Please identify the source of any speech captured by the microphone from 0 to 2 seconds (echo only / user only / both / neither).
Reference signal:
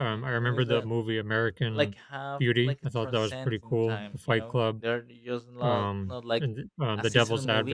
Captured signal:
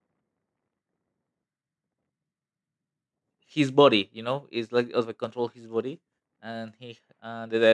neither